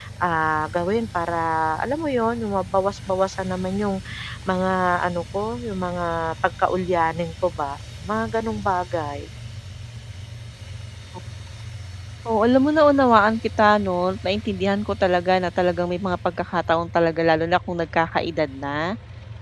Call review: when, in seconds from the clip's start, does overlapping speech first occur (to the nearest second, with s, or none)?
none